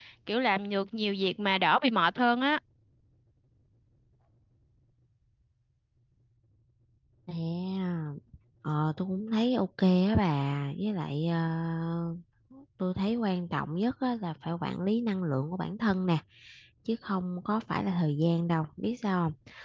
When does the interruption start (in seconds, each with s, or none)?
none